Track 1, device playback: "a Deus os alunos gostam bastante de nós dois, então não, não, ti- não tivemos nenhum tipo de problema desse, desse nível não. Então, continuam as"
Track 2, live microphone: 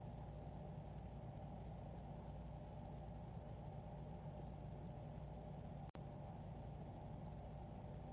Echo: none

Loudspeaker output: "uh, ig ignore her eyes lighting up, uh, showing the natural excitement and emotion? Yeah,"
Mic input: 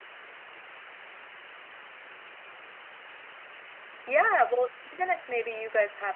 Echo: none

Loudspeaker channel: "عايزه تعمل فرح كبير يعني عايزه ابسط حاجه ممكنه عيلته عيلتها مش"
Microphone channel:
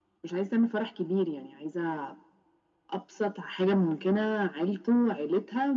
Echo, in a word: present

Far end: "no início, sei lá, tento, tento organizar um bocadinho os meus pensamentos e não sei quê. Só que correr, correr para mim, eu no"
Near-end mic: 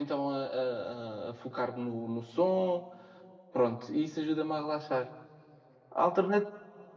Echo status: none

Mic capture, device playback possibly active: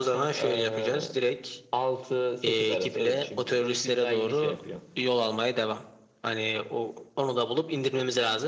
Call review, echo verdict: present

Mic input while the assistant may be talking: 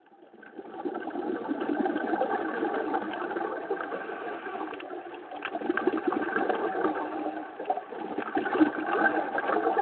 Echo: none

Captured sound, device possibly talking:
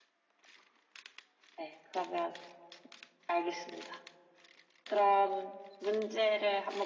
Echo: present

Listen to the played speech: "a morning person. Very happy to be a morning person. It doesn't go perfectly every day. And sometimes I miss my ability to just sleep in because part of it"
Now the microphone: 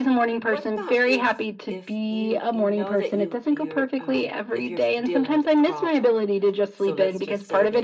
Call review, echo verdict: present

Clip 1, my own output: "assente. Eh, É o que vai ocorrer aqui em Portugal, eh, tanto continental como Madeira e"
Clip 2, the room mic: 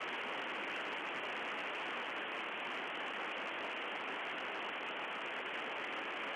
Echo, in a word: none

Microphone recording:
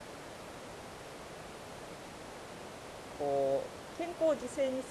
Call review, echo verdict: none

